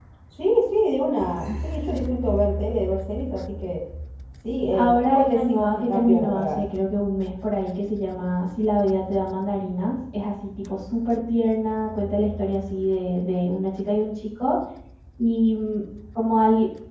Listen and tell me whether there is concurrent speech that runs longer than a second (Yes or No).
Yes